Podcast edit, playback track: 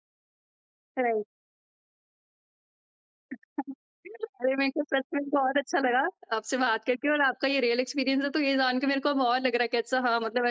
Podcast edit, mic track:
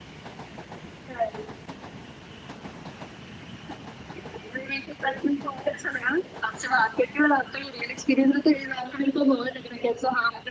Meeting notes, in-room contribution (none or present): none